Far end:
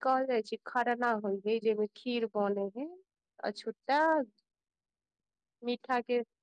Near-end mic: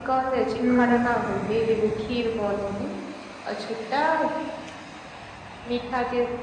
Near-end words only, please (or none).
हूँ